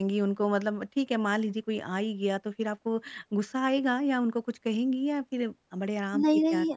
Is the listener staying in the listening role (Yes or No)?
No